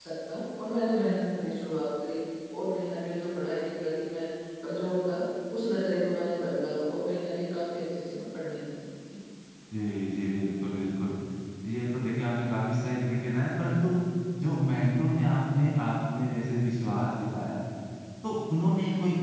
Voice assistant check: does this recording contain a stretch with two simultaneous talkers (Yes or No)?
No